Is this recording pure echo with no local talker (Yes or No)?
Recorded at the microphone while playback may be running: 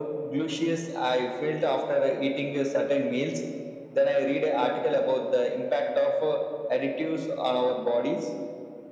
Yes